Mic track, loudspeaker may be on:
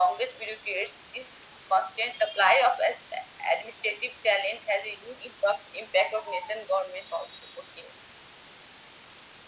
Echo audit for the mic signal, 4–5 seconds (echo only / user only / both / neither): echo only